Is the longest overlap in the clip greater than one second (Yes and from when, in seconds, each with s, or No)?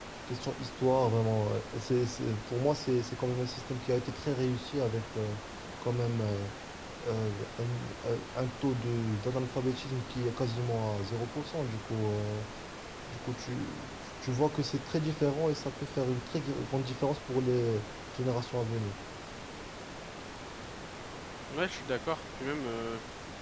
No